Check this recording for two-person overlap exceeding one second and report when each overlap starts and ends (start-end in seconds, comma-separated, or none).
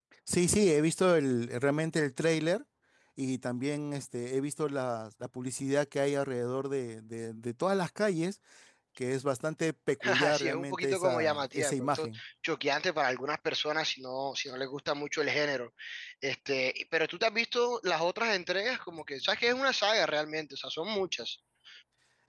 10.0-12.2